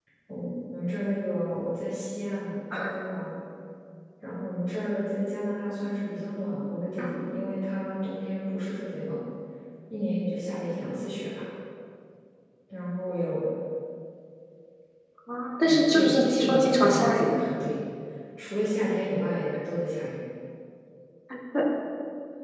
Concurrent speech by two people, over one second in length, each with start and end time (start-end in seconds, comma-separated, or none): 15.6-17.4